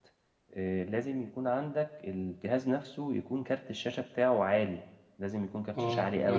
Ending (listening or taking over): taking over